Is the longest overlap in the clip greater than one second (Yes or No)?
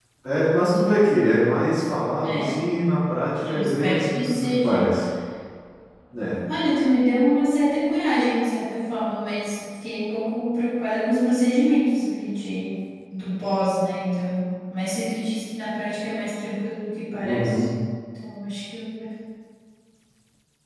Yes